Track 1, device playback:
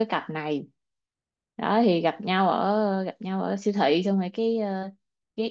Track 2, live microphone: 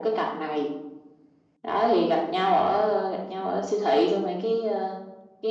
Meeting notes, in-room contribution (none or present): none